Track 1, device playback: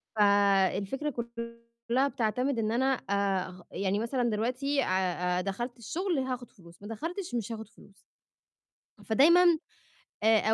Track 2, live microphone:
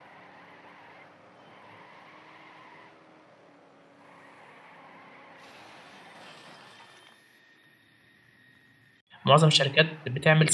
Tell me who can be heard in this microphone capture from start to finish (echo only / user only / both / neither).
user only